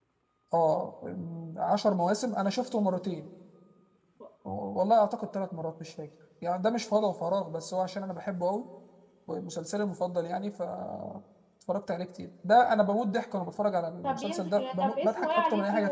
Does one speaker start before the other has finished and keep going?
Yes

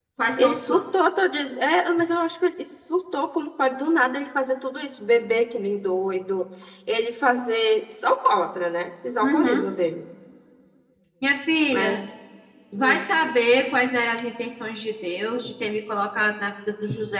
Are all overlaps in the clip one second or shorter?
Yes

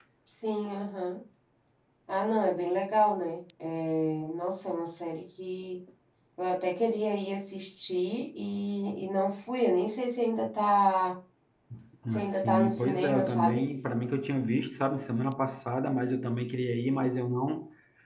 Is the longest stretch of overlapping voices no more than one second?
No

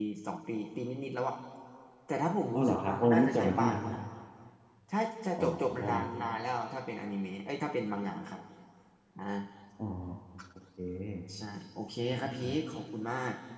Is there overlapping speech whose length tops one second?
Yes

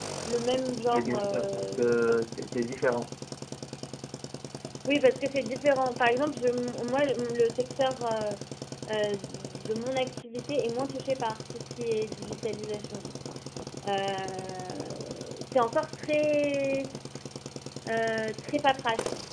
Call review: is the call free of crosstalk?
No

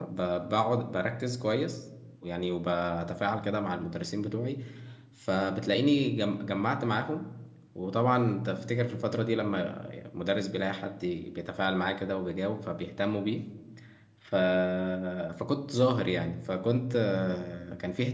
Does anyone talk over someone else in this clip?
No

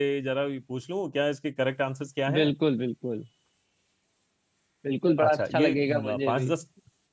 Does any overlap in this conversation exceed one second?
Yes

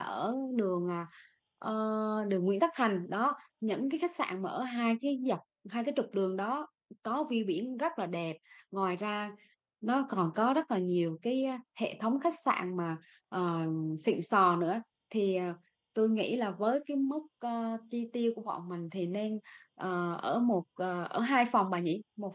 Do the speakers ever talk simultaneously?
No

